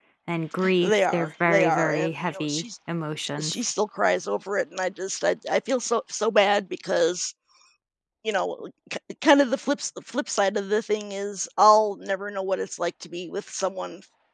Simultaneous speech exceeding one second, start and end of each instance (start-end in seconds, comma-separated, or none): 0.8-2.6